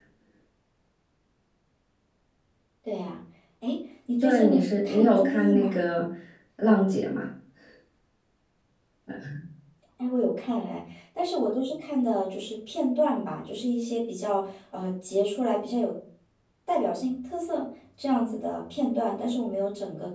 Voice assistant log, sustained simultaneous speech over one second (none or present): present